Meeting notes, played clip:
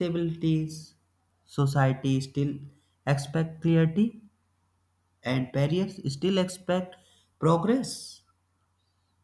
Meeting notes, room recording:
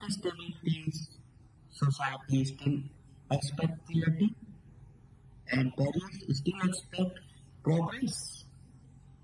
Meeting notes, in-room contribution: none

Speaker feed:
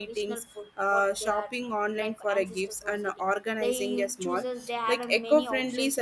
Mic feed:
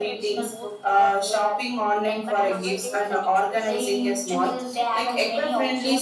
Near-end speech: present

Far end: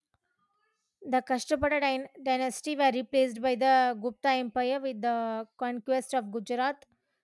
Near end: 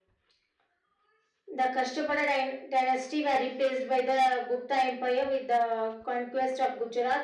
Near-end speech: none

